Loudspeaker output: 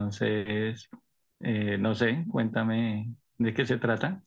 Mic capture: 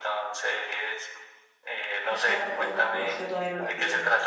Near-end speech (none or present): present